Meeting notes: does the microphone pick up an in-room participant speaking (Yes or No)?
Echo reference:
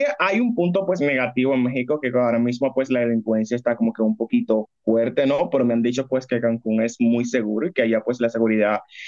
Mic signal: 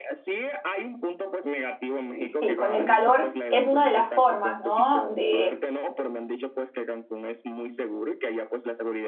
Yes